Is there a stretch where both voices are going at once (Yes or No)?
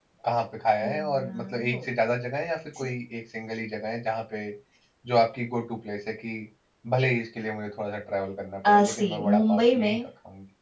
Yes